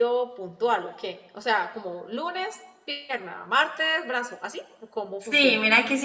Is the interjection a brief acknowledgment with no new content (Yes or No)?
No